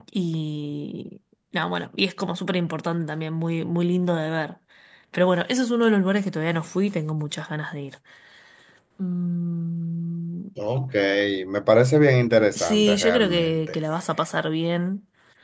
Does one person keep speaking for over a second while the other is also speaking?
Yes, from 12.6 s

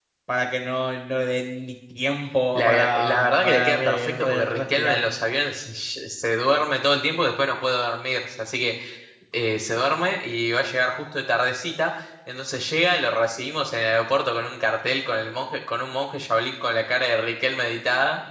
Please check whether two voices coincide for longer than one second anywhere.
Yes, from 2.6 s

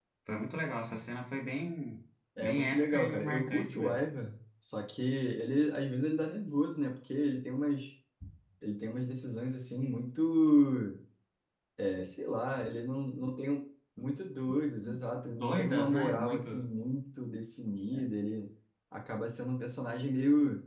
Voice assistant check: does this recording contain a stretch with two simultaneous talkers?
Yes, from 2.4 s

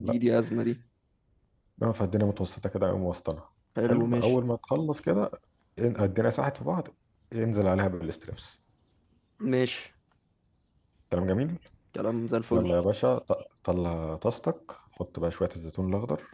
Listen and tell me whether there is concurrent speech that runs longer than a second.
No

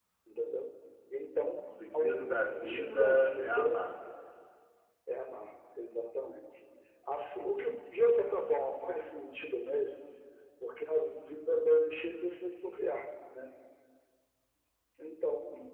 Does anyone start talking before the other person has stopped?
Yes, from 1.7 s

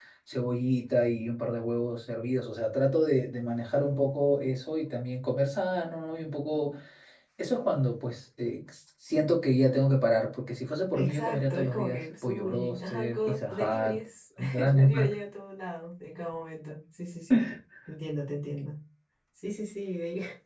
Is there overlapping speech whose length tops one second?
Yes, from 10.9 s

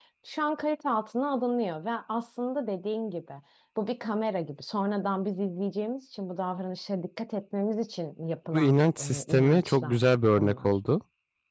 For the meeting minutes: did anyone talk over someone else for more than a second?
Yes, from 8.5 s

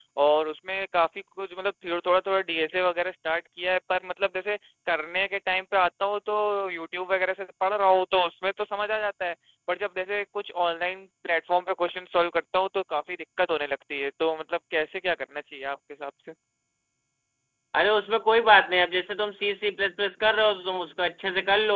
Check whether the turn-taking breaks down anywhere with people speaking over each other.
No

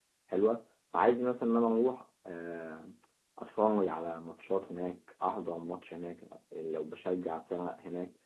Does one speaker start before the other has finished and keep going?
No

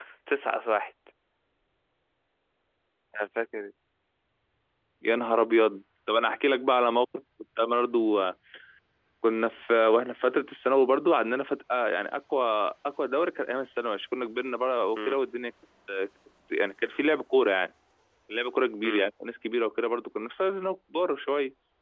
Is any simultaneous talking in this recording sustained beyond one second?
No

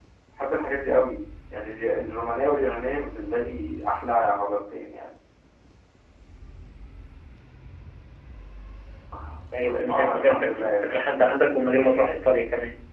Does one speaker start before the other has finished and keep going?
Yes, from 9.6 s

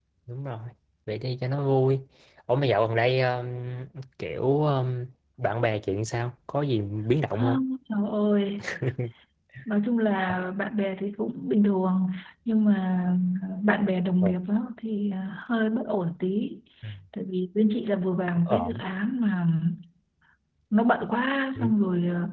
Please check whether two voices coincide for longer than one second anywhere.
No

